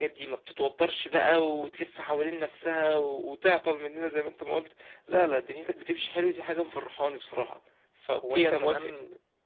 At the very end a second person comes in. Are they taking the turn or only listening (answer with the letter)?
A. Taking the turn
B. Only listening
A